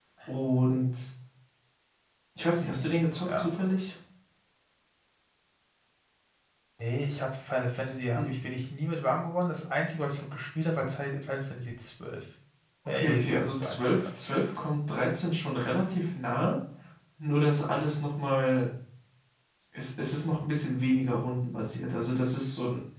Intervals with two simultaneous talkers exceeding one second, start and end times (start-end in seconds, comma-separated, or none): 12.9-14.3